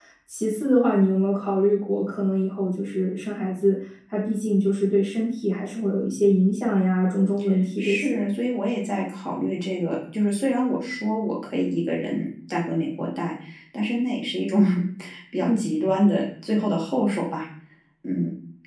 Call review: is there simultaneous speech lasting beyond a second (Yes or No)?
No